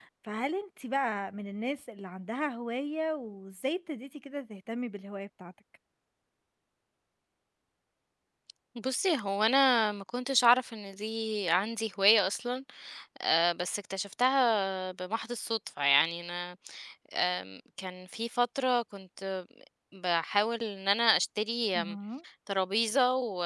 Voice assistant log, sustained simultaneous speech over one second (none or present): none